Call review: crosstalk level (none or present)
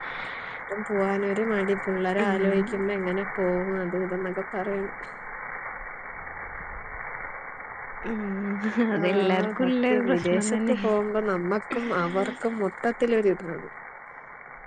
present